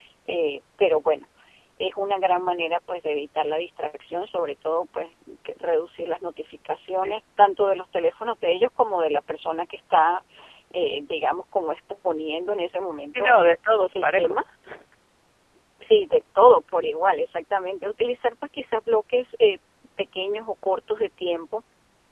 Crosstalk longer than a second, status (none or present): none